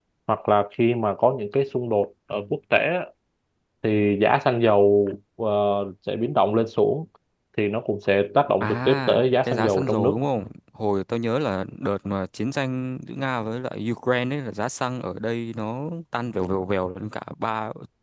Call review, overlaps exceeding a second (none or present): present